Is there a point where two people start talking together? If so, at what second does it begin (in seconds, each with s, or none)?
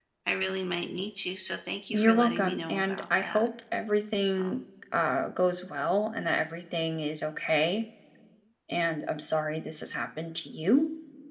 1.9 s